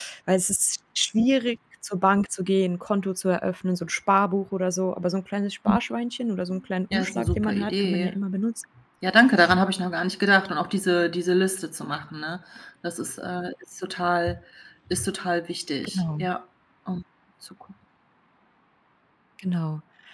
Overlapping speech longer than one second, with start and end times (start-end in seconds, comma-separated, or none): 6.9-8.1